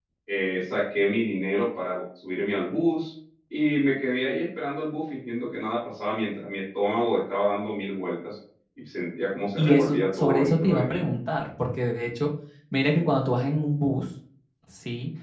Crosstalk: present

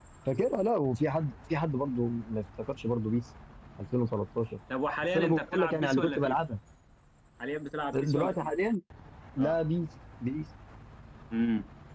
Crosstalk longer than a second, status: present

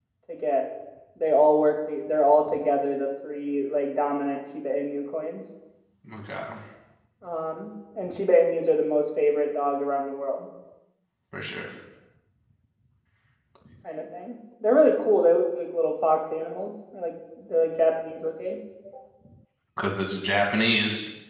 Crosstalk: none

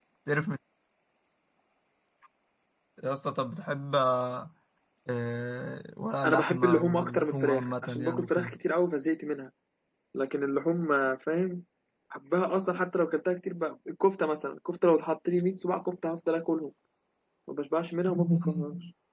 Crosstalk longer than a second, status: present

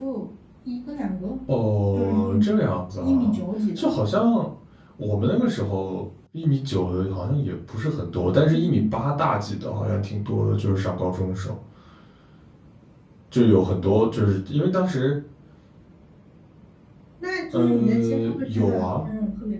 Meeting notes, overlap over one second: present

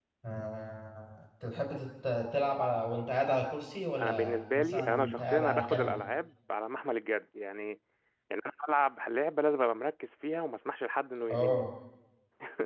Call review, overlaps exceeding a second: present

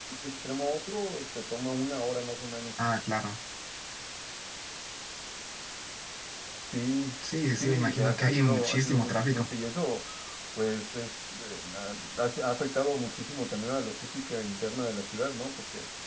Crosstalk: present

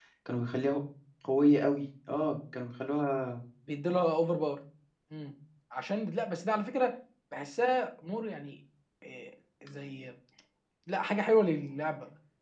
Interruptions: none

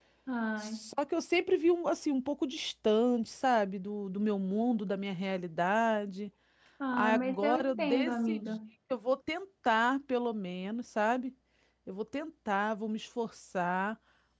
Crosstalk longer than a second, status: present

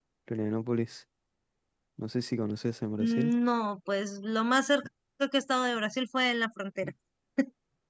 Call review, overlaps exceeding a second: none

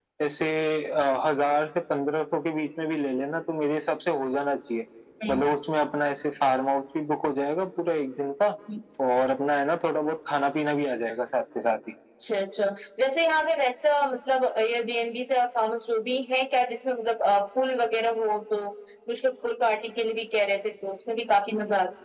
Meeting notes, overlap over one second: none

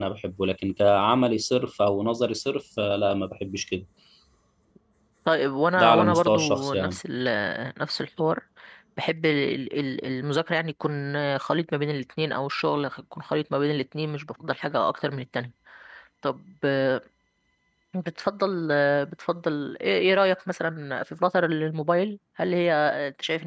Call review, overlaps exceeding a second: present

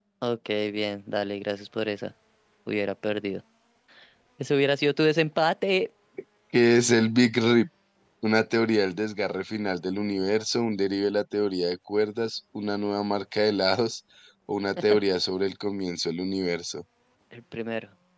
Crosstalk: none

